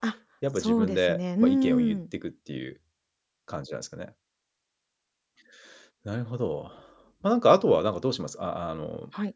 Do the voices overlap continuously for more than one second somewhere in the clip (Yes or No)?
Yes